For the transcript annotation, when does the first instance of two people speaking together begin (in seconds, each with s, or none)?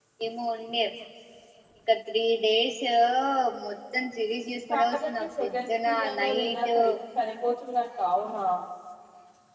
4.7 s